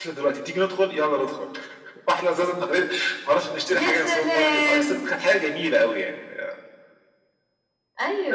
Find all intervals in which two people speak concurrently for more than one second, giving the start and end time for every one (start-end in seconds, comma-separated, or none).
3.7-5.1